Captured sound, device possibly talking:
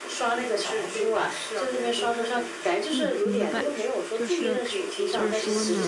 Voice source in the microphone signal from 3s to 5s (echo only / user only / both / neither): both